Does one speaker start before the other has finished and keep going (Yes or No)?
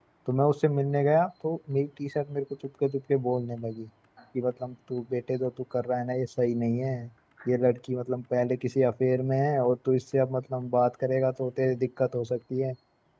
No